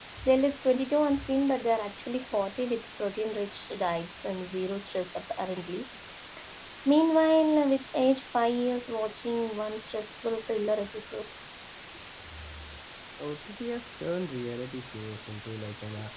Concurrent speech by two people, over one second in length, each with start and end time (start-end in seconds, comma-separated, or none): none